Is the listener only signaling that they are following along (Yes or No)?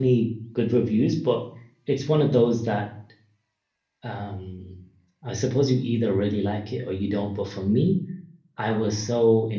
Yes